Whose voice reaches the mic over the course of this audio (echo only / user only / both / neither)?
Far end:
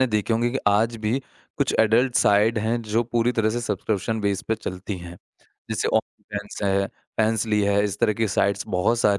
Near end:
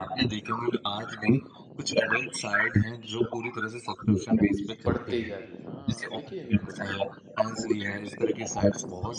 both